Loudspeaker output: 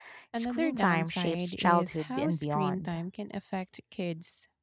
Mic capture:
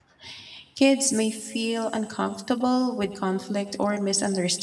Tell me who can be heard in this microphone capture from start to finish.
user only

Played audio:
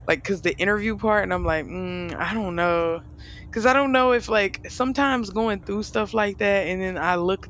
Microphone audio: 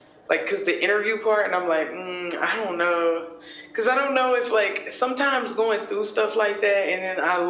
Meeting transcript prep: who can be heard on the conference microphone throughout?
echo only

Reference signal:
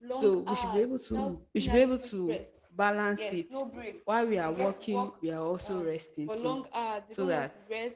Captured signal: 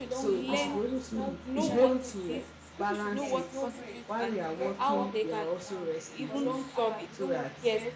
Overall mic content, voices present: both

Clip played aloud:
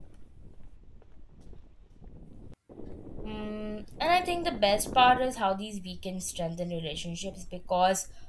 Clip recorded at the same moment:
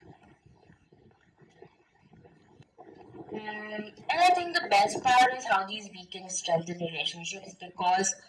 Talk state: echo only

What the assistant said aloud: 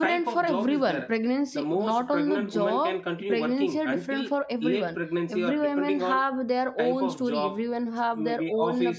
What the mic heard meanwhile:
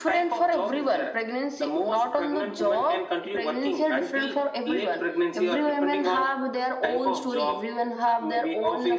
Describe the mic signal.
echo only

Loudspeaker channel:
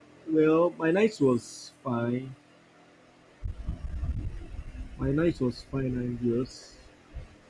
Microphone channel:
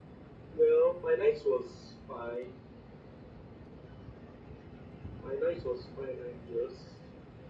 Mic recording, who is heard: echo only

